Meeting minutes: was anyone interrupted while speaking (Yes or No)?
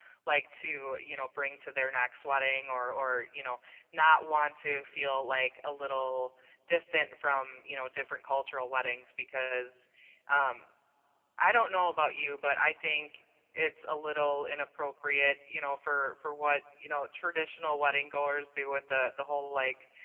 No